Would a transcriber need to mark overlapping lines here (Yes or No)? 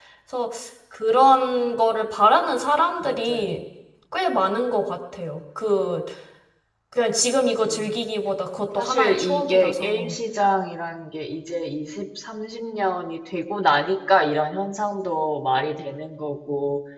Yes